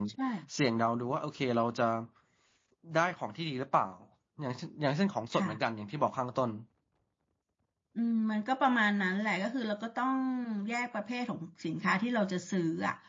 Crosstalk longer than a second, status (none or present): none